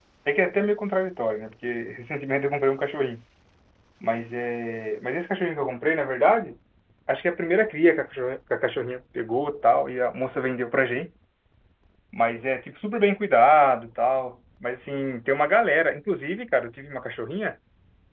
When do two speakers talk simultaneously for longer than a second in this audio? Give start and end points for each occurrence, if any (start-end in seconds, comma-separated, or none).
none